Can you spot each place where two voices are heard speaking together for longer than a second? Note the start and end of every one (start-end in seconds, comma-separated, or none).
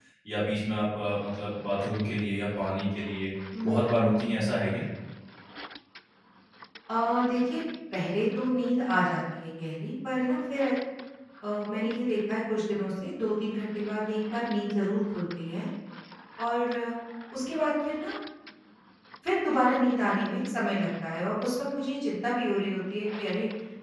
3.6-4.8